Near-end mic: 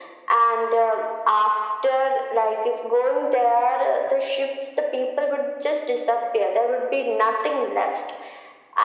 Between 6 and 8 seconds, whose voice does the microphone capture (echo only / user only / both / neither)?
echo only